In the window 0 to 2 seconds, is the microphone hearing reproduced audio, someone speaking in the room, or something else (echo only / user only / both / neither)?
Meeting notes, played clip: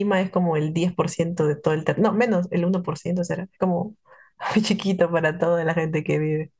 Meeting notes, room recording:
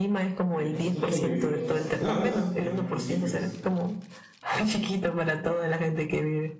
both